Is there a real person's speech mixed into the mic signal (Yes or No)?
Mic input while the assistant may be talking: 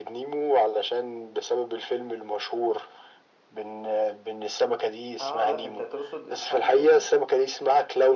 Yes